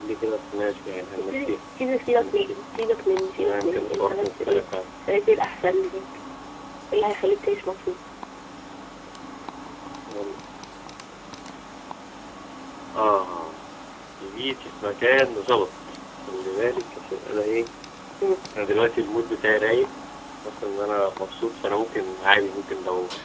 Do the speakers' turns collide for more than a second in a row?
Yes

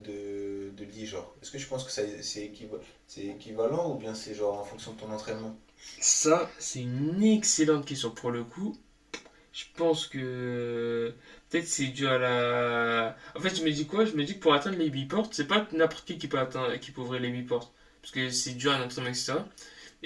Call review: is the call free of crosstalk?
Yes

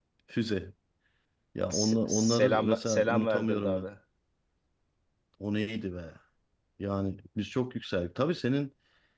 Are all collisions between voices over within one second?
No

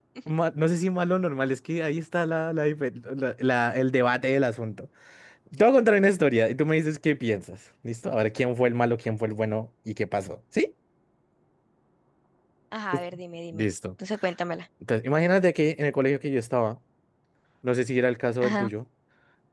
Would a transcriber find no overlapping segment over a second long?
Yes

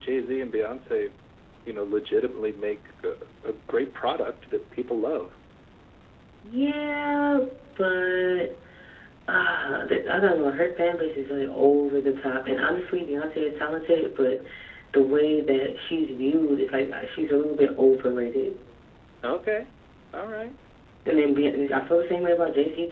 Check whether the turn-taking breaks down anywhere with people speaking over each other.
No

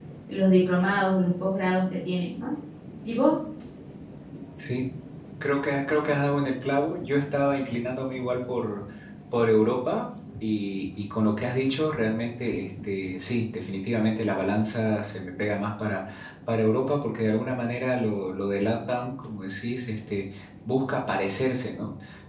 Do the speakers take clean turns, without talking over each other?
Yes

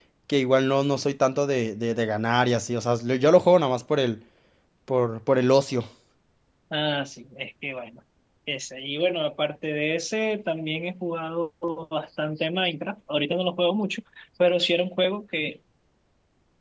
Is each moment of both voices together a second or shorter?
Yes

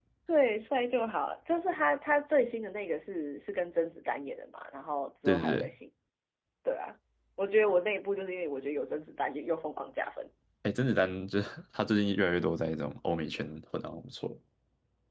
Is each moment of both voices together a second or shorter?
Yes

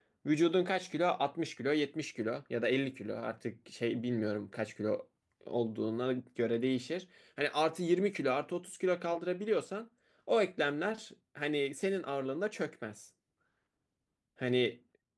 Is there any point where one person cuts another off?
No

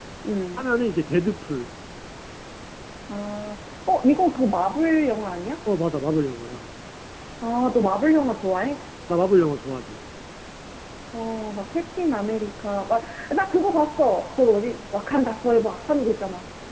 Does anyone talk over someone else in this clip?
No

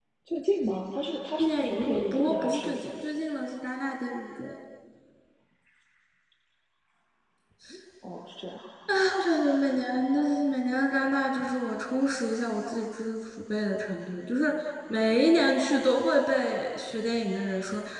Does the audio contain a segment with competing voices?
Yes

